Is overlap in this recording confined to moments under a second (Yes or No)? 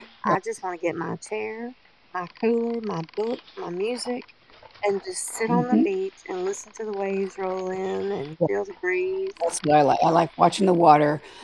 Yes